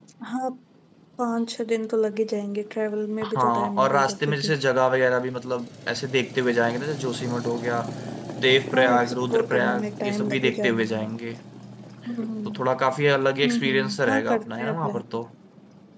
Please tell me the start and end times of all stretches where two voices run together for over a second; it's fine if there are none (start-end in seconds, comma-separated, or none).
3.2-4.5, 8.7-11.1, 13.4-15.0